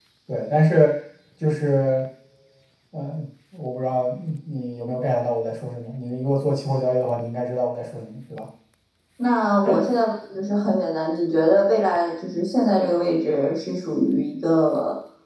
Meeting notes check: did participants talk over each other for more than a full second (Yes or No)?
No